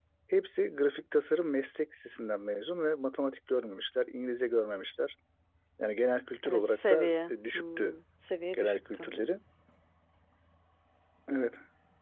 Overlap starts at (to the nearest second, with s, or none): 6 s